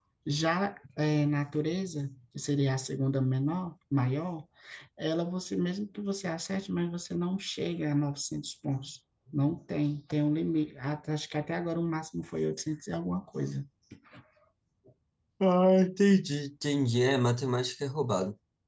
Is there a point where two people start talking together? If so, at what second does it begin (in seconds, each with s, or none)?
none